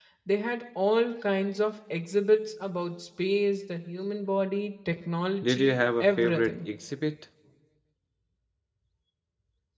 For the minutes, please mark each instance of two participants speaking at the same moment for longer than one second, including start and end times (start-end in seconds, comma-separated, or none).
5.4-6.7